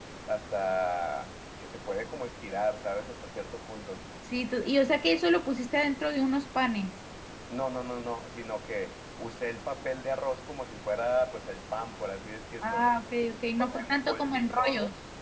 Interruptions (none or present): present